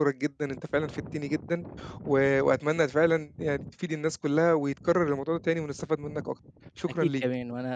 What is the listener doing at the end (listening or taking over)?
taking over